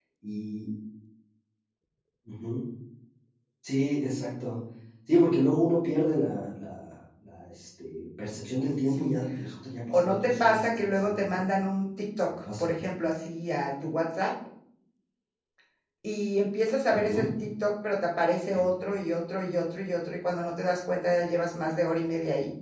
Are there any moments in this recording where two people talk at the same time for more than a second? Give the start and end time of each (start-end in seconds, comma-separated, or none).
9.9-11.4